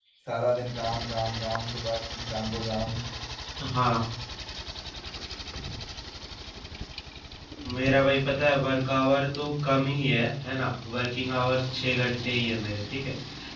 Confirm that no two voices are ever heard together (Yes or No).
Yes